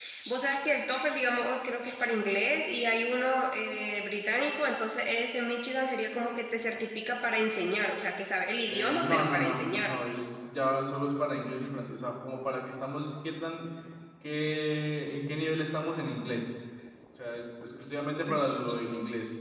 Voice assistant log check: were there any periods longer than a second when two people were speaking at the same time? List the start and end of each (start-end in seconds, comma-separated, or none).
8.7-9.9